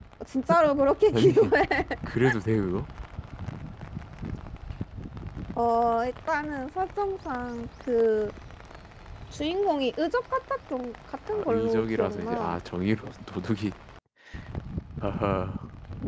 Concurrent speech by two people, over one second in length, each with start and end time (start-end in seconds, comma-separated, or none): 11.3-12.6